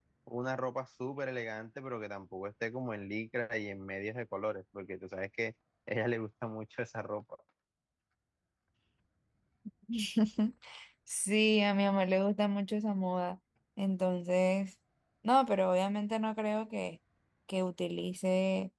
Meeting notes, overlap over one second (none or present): none